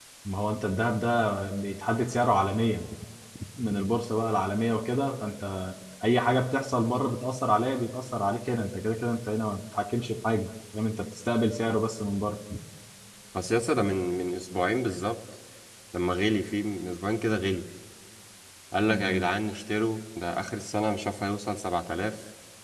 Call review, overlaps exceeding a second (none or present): none